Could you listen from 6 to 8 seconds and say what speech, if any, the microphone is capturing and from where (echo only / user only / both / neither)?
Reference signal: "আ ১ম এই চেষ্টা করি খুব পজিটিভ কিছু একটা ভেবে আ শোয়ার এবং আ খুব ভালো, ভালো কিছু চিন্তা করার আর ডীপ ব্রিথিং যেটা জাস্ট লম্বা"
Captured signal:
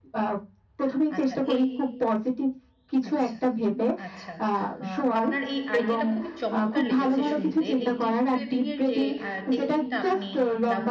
both